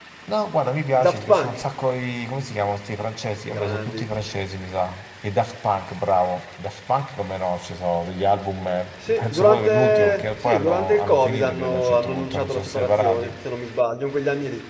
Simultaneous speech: Yes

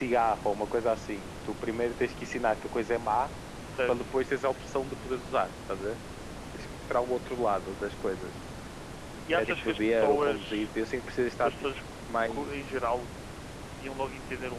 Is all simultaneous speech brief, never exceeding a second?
No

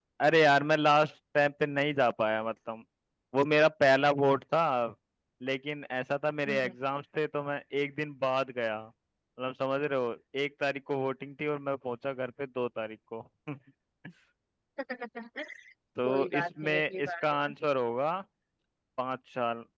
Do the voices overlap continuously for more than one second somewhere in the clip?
Yes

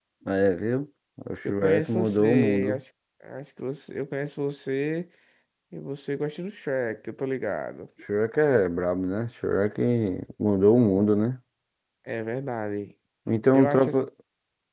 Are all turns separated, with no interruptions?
No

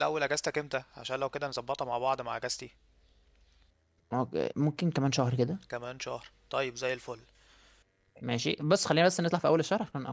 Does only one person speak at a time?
Yes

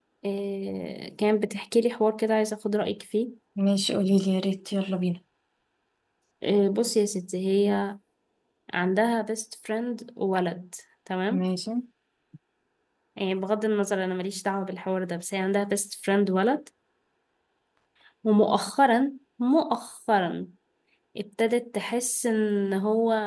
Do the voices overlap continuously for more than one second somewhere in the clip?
No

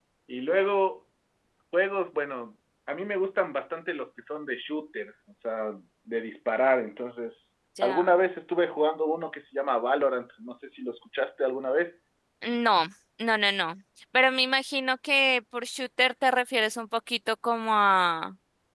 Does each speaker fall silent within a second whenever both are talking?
Yes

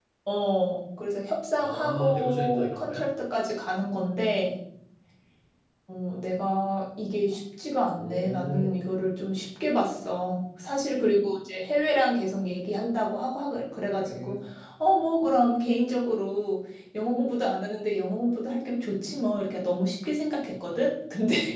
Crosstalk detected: Yes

